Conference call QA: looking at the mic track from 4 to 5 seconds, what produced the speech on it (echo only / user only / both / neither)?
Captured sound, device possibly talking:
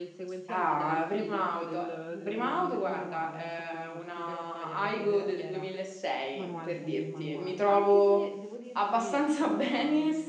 both